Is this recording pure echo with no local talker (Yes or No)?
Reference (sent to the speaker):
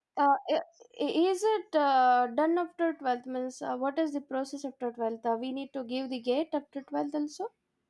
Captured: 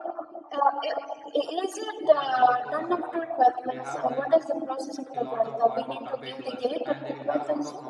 No